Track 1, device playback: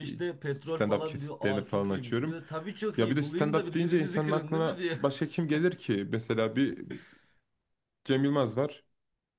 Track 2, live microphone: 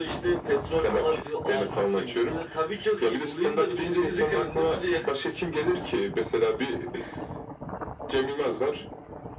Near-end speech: none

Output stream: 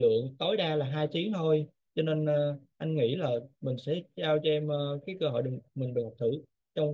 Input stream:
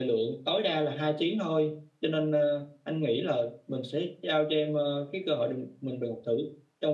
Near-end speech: none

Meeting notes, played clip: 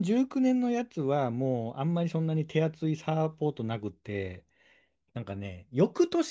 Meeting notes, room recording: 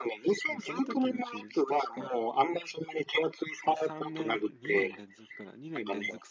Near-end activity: present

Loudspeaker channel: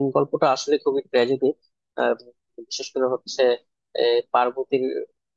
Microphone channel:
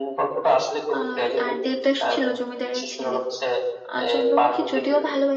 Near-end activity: present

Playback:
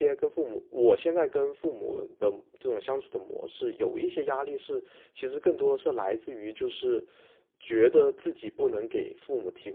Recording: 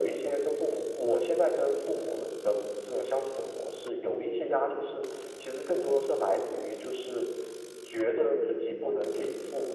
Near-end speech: none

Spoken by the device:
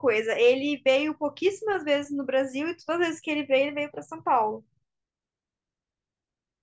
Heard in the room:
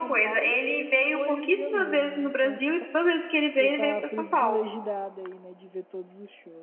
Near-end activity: present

